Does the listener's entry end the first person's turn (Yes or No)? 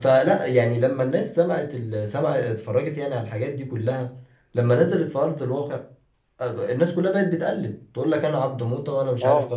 No